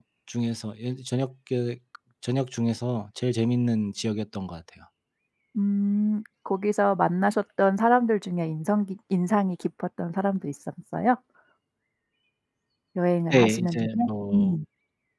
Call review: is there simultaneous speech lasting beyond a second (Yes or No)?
Yes